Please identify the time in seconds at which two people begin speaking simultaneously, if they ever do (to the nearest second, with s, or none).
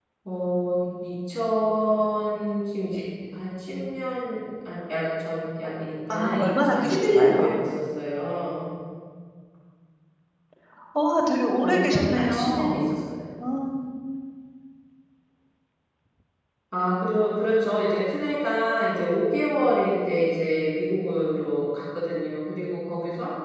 6 s